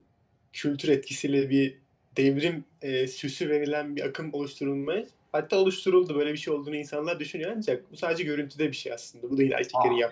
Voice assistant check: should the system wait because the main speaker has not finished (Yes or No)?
No